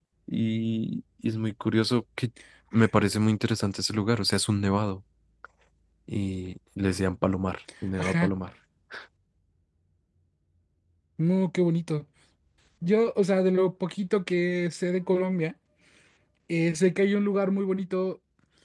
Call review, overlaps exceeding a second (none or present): none